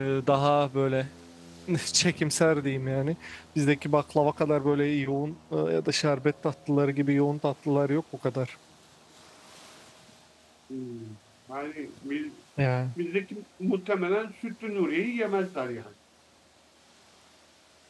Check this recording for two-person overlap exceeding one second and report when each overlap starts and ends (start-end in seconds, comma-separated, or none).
none